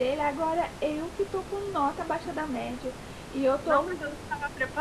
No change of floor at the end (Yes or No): No